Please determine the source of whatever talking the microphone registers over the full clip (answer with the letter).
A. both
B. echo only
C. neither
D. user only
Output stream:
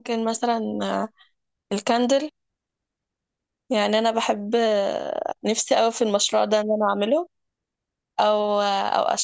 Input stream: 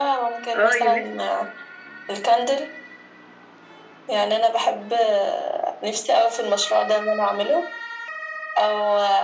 A